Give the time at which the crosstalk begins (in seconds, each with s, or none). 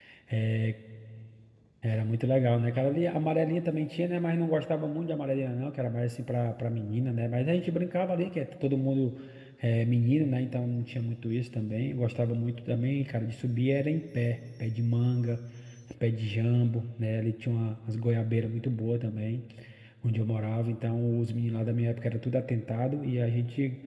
none